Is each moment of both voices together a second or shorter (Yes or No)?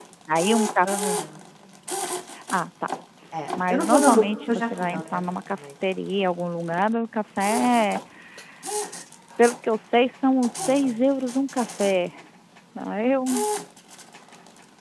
No